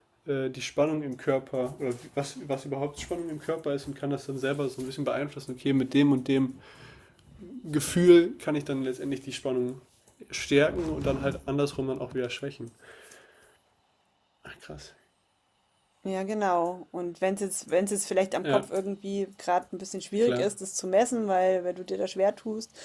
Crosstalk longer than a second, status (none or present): none